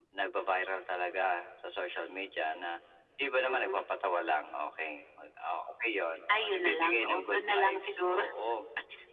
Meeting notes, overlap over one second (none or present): present